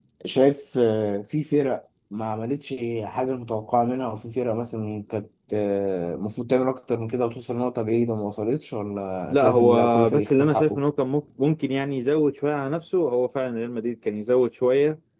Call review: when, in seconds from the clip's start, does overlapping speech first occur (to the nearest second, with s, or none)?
9 s